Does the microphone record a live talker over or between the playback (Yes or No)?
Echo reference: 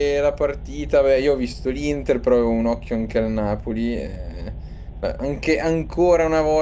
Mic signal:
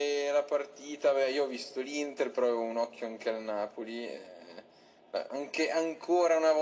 No